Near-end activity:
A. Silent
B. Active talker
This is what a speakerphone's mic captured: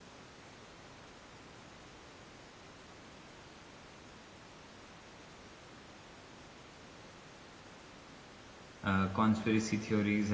B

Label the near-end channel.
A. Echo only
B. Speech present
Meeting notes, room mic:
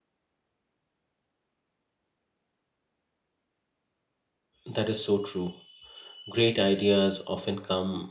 B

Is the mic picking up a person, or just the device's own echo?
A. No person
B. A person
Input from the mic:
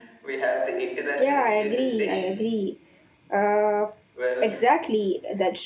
B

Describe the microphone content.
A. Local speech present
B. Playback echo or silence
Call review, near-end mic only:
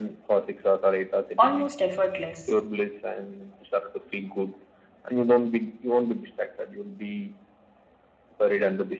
A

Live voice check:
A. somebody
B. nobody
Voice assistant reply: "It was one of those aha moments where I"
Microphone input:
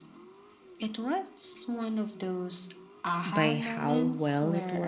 A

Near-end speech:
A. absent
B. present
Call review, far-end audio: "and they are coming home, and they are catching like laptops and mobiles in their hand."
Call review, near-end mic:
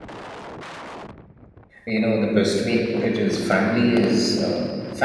B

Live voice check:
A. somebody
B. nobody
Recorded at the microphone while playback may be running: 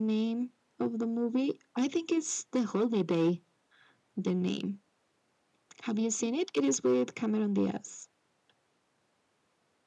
B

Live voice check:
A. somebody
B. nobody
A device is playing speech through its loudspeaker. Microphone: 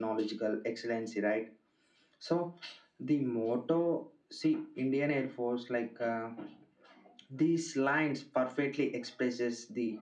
B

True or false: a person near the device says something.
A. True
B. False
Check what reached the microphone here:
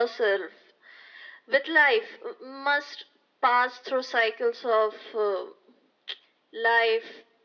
B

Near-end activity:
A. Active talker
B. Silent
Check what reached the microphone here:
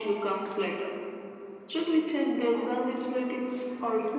B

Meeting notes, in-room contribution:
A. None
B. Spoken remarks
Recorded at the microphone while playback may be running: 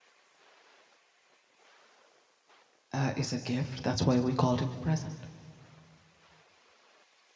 B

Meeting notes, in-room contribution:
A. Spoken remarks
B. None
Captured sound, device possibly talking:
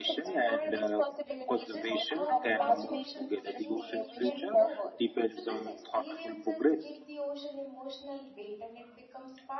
A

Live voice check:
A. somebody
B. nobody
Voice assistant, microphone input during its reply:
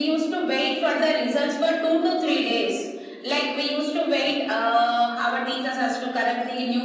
B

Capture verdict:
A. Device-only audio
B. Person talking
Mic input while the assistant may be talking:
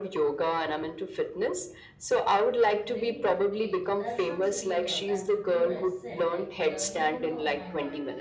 B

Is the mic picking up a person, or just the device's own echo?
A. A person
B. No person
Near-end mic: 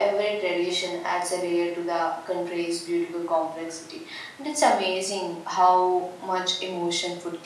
B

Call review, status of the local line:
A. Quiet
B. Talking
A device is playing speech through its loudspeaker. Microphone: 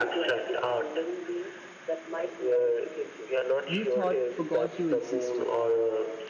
B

